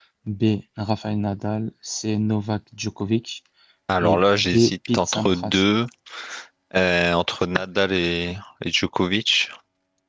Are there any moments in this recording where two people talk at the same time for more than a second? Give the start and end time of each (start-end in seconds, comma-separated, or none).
4.0-5.6